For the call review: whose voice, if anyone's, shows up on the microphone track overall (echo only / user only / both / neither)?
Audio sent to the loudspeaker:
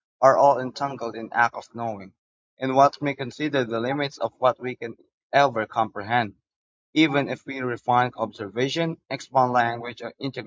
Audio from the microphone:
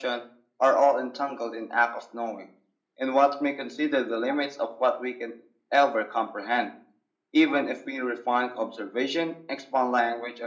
echo only